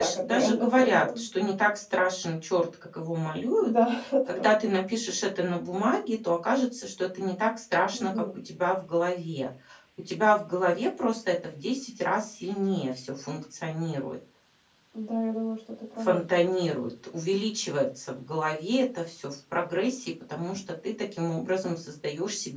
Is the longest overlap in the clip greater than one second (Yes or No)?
Yes